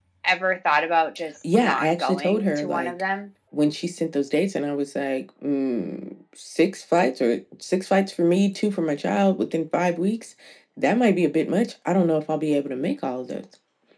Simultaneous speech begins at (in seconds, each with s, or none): 1.4 s